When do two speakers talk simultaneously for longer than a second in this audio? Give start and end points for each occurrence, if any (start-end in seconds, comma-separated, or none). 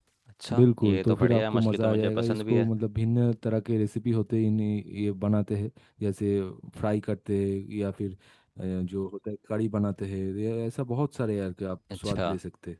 0.5-2.7